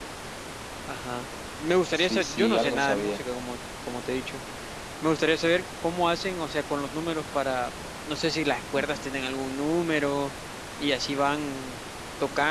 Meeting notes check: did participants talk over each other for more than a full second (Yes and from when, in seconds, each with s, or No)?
Yes, from 1.9 s